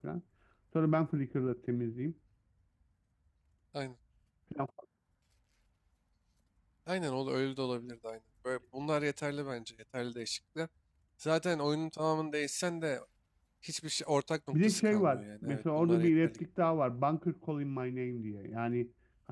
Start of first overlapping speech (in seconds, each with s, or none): 14.5 s